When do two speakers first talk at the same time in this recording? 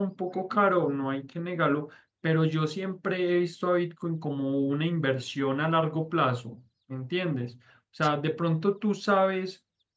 none

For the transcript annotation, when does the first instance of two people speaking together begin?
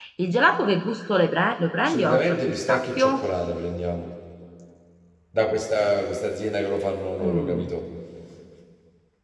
1.9 s

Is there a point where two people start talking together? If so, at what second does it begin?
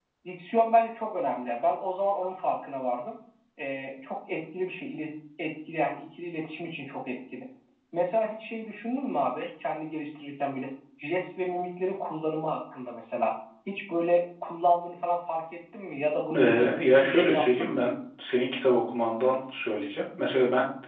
16.3 s

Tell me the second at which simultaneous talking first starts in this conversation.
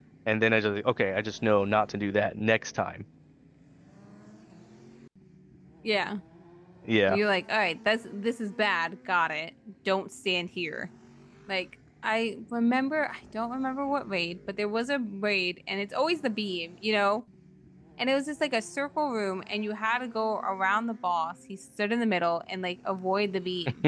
none

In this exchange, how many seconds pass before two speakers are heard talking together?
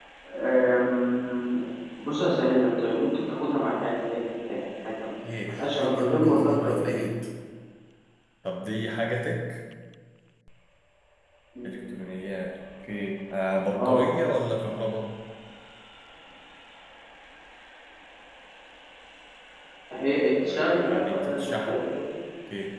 5.4 s

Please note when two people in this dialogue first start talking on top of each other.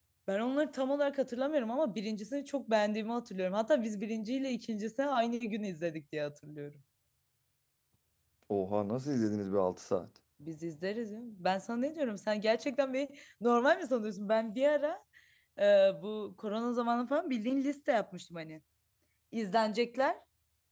none

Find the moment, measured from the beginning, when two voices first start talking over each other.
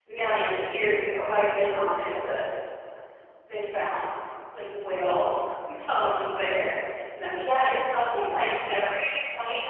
none

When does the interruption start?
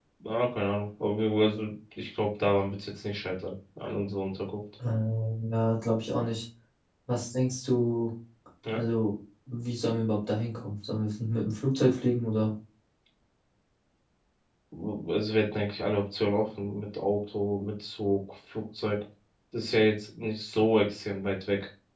none

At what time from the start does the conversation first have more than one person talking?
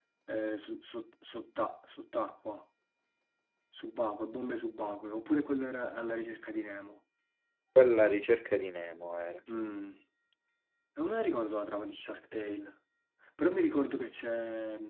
none

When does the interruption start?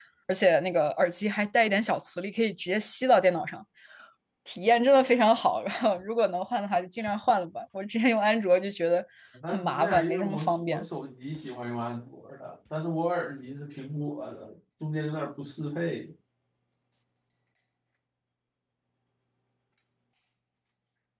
9.5 s

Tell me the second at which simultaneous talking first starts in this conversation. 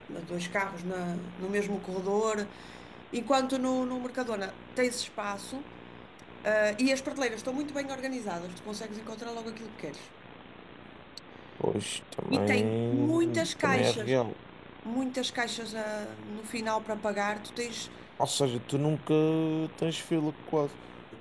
12.3 s

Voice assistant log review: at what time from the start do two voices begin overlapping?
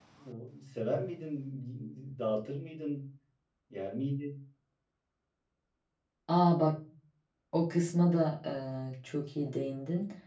none

